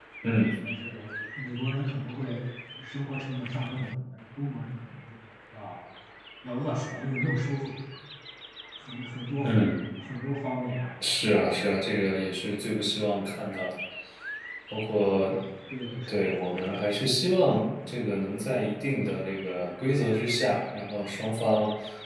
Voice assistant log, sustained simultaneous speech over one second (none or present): none